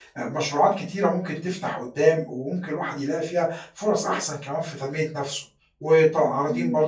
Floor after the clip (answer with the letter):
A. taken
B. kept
B